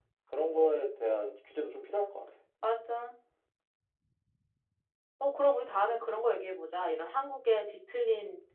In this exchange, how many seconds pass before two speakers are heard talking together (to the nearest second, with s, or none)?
none